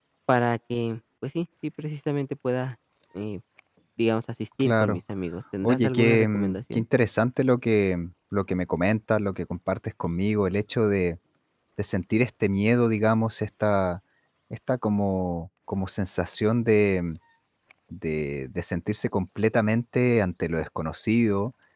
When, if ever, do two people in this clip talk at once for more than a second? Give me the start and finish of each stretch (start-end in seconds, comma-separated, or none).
5.6-6.8